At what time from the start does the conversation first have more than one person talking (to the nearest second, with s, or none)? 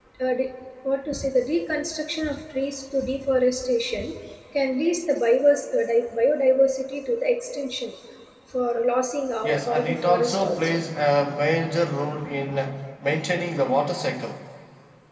9 s